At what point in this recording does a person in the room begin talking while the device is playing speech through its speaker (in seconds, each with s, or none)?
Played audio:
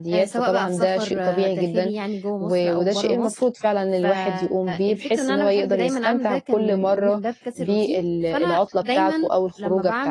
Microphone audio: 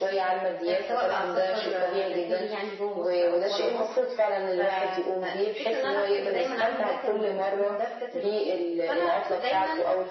none